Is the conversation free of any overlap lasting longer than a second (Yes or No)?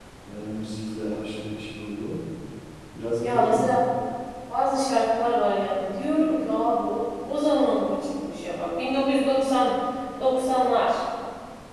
Yes